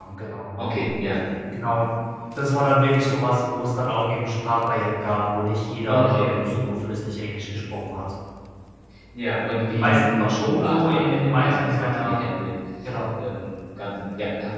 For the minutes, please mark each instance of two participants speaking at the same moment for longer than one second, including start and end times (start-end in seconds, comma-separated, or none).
9.7-12.2